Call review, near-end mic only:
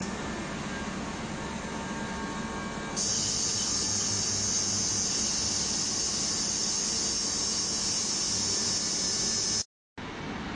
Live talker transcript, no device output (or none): none